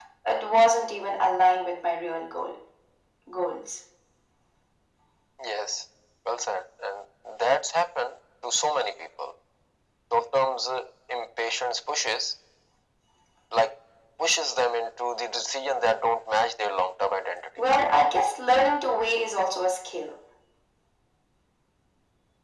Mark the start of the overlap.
none

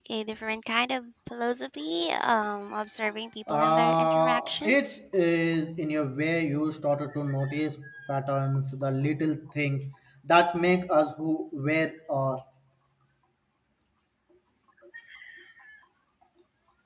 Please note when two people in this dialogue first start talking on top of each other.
3.5 s

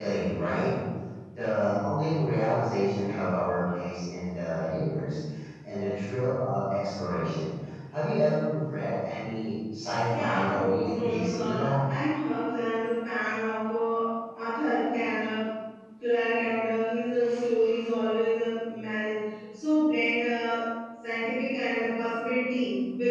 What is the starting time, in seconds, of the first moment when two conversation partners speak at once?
9.9 s

